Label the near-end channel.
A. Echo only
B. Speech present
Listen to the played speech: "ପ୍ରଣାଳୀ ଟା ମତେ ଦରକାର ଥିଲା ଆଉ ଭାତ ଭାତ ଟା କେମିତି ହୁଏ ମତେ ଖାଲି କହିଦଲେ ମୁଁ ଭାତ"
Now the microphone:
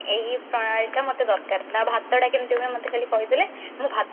A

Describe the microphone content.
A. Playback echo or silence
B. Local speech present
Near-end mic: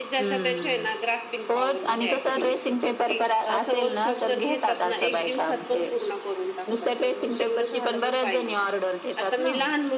B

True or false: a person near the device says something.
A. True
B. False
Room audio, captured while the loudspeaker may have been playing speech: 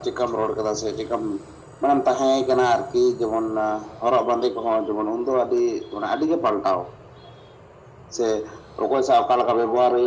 B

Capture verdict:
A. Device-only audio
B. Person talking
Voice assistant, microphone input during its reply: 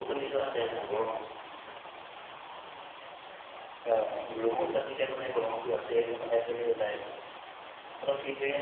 A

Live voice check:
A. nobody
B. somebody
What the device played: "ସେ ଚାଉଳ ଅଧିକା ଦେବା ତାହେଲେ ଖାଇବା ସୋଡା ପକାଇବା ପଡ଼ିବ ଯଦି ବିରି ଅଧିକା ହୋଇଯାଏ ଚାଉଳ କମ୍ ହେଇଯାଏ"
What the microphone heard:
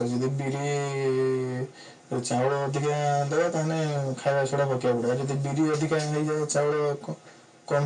A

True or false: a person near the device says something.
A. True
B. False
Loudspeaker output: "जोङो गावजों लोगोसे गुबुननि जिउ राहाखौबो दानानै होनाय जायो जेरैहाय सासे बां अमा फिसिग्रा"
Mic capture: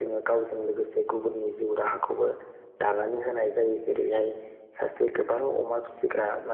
B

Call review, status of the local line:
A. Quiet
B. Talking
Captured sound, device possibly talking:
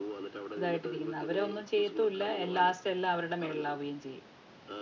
B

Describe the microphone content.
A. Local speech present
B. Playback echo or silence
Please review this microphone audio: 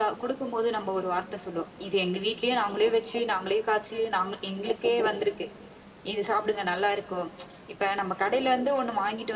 B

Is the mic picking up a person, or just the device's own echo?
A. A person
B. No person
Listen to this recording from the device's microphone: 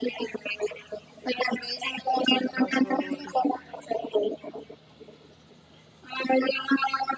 A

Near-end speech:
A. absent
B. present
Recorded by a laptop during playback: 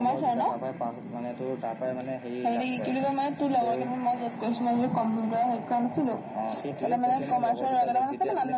A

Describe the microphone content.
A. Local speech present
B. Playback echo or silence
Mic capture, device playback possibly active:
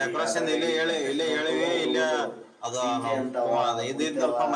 A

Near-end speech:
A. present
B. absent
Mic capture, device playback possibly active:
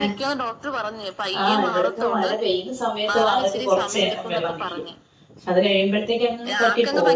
A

